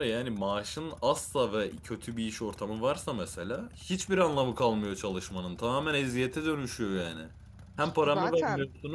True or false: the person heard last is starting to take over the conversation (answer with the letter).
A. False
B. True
A